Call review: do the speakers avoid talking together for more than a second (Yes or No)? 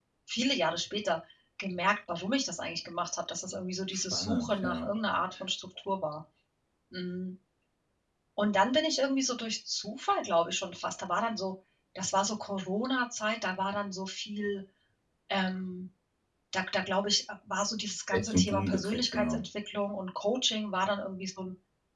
No